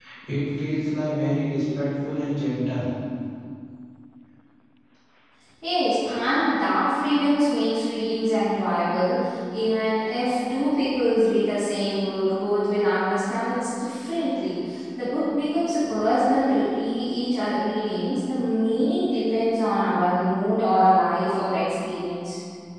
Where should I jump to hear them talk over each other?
none

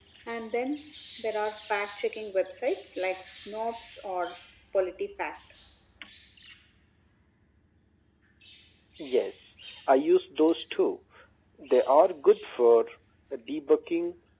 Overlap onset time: none

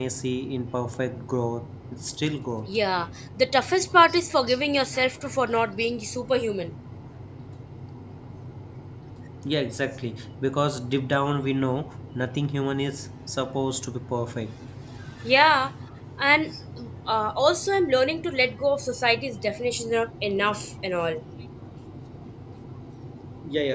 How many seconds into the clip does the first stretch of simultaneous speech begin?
none

